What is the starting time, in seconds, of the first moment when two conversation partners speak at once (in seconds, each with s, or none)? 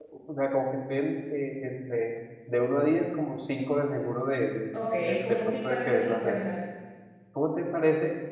4.7 s